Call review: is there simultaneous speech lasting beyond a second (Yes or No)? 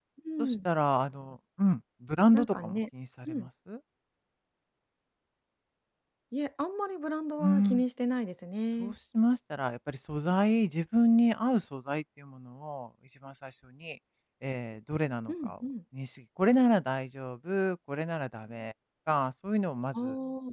No